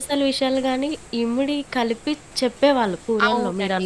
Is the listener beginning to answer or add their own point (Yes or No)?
Yes